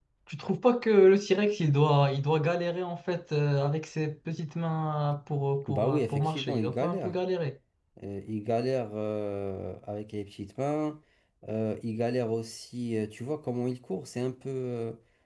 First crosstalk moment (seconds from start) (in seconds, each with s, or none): 5.7 s